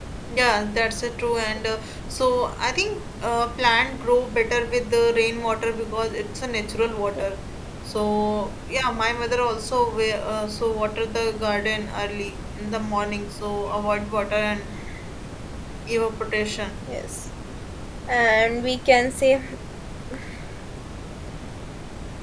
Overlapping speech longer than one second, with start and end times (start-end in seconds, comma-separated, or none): none